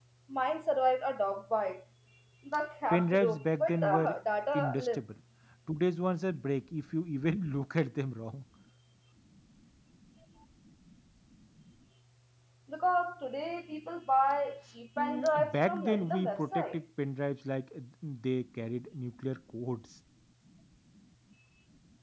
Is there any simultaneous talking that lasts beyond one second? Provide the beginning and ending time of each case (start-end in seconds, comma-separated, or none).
2.9-4.1, 15.0-16.8